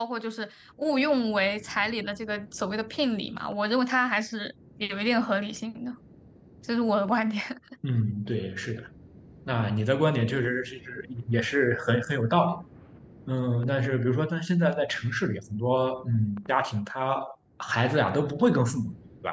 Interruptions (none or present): none